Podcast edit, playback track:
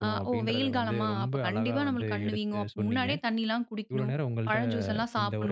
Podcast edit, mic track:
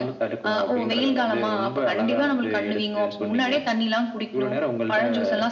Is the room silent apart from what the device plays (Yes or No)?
Yes